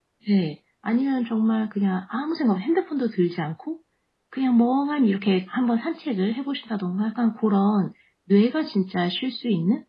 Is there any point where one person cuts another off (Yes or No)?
No